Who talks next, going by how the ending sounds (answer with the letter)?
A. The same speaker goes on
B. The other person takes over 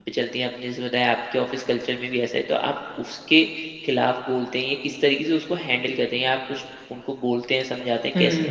B